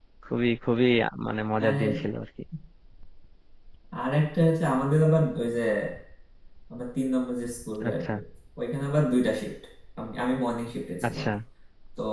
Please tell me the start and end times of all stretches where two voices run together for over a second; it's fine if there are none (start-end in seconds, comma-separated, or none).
none